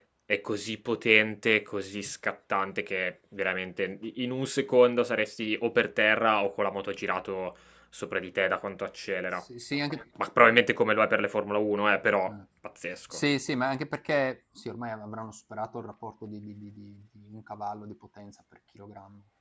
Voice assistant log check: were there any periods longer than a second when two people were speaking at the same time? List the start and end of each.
none

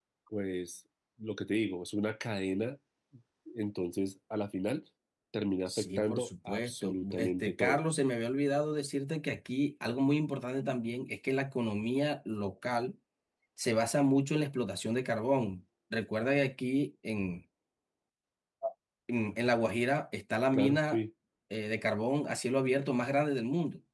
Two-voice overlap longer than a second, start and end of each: 5.7-7.8

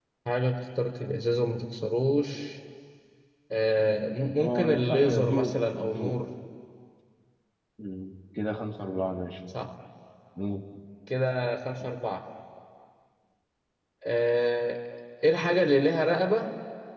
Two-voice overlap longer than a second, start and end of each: 4.4-6.2

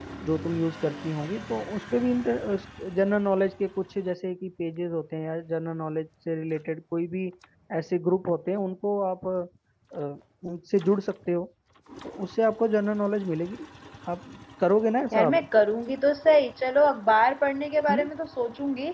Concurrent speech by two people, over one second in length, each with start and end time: none

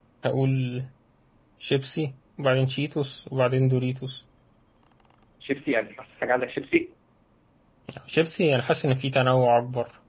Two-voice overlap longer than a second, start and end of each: none

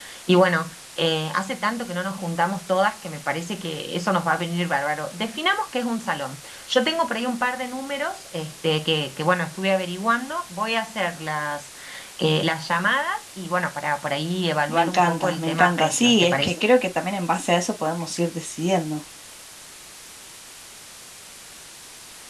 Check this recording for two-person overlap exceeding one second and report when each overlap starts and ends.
14.7-16.6

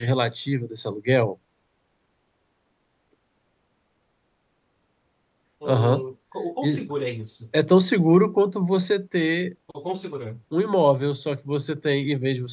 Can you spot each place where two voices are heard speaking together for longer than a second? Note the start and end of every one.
none

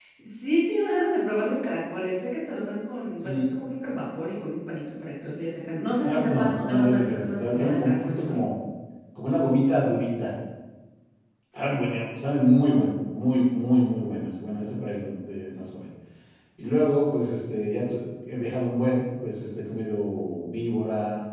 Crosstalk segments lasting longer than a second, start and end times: 6.0-8.4

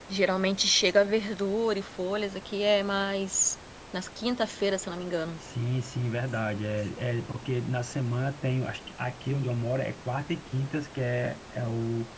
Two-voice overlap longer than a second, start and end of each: none

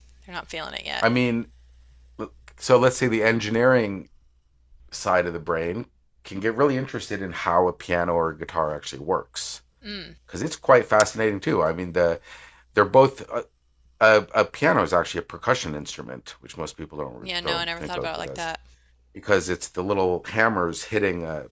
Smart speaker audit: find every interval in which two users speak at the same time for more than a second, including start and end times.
17.2-18.4

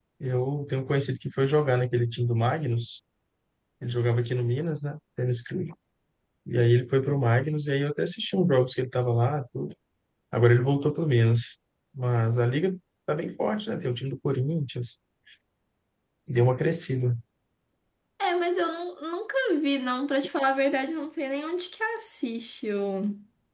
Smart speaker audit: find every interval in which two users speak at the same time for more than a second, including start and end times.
none

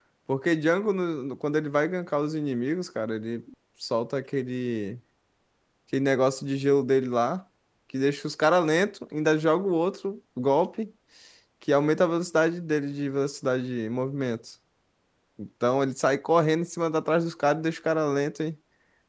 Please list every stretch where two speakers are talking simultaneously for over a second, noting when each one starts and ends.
none

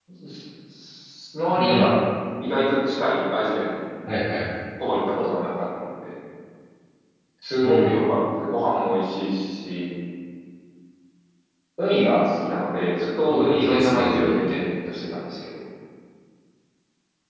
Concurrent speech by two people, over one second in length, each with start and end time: 13.2-14.6

